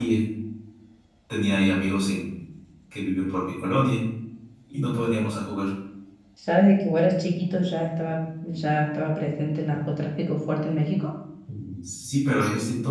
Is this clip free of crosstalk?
Yes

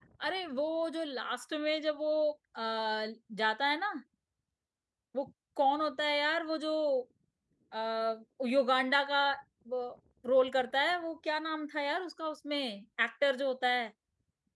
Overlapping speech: No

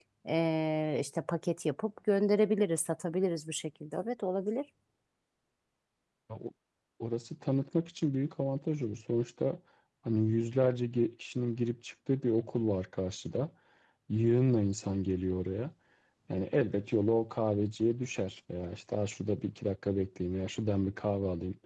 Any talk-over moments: No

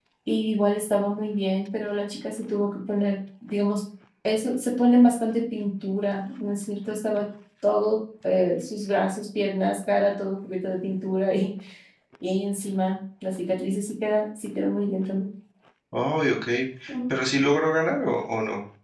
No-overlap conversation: Yes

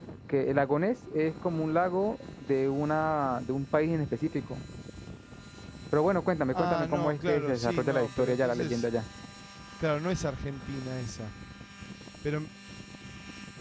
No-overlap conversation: No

